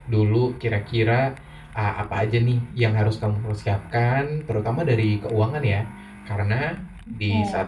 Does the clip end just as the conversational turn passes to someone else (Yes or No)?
No